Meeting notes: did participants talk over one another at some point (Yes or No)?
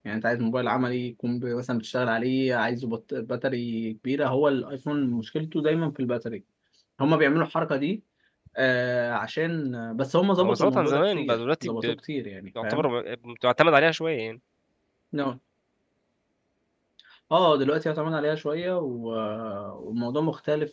Yes